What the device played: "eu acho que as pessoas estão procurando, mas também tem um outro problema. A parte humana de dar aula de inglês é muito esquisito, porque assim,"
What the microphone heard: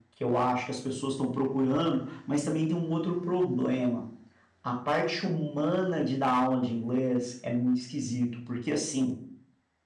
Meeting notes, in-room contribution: none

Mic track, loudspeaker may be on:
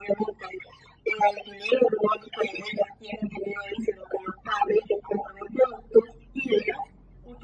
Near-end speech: none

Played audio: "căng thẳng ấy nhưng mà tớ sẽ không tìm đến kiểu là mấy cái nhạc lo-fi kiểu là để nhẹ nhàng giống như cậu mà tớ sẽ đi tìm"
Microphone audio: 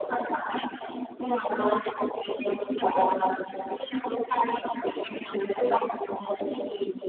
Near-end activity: none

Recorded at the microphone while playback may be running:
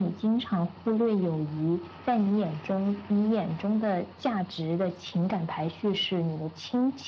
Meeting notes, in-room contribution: none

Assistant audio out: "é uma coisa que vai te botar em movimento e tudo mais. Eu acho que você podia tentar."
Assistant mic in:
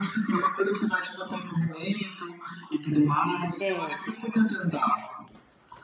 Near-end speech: present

